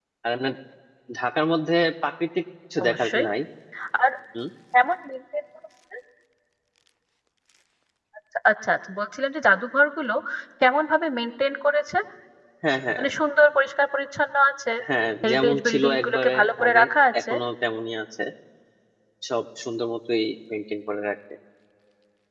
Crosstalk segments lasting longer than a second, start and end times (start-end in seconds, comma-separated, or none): 15.2-16.8